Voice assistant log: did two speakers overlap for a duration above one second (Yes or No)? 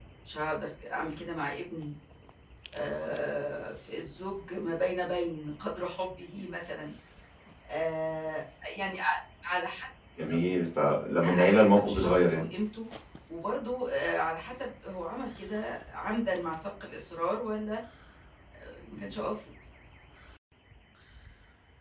Yes